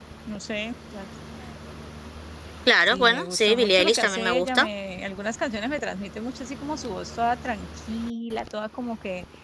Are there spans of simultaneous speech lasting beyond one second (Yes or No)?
Yes